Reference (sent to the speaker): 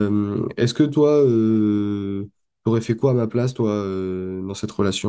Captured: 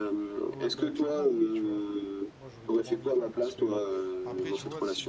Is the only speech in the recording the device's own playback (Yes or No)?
No